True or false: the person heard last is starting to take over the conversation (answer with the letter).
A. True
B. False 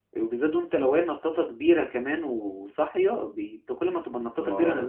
A